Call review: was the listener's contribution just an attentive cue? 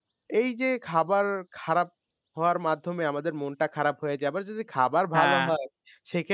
Yes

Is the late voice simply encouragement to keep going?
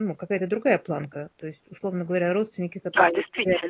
Yes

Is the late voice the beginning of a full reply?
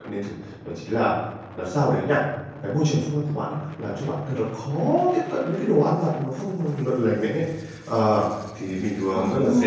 No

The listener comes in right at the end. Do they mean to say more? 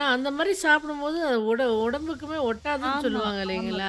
Yes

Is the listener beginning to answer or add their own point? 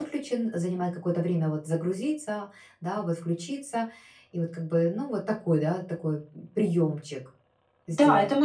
Yes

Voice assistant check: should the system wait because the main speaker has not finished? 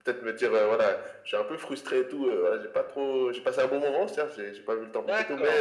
No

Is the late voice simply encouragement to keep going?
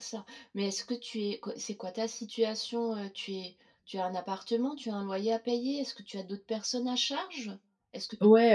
No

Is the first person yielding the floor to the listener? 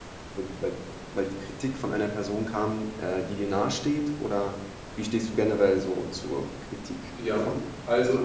Yes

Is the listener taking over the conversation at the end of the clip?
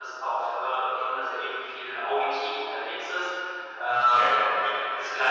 No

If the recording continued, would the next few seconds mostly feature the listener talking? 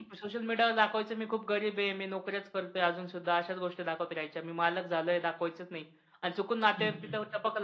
No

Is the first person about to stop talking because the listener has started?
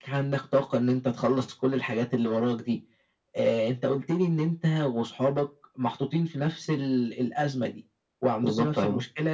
No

